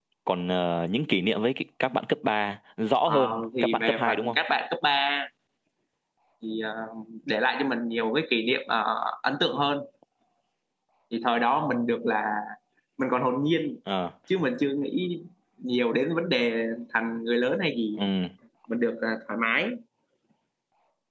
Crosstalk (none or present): present